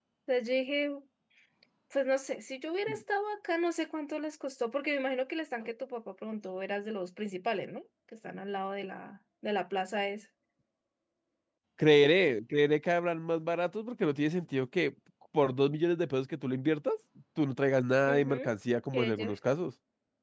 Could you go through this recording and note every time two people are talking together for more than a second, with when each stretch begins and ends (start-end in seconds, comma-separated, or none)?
none